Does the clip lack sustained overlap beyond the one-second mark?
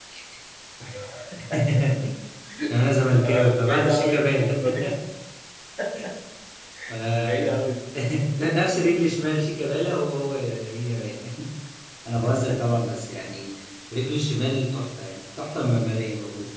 No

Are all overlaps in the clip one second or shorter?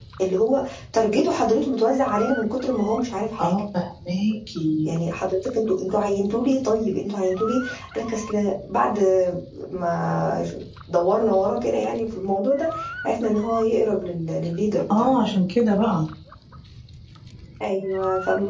Yes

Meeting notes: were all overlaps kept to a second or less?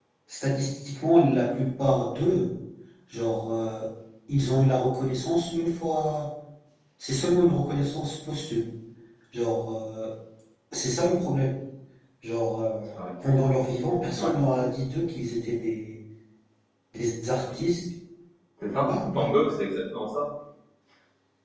Yes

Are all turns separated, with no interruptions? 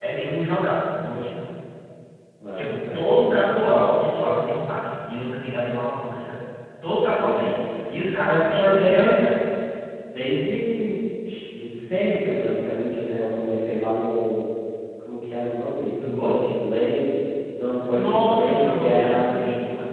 No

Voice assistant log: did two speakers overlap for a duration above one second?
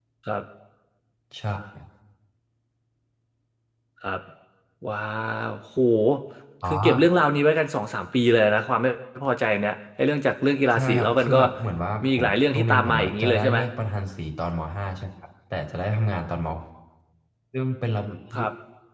Yes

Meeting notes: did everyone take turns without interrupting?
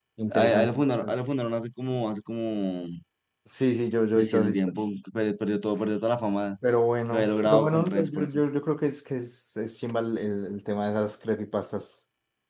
No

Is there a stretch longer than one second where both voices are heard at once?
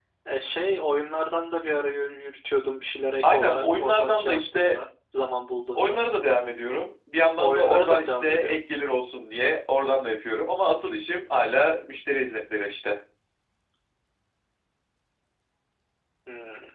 Yes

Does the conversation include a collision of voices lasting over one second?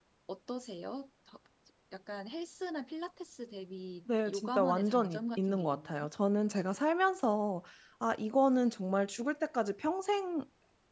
Yes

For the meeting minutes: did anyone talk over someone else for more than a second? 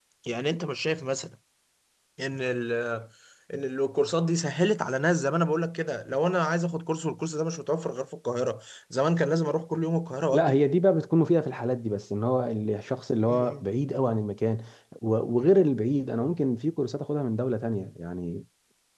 No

